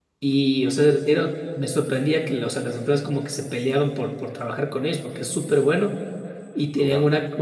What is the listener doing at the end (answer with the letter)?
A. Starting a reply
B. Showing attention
B